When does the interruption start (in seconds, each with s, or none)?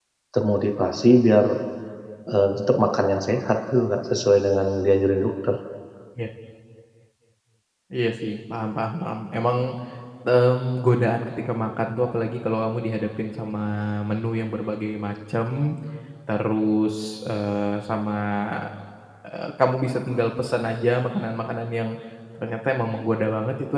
none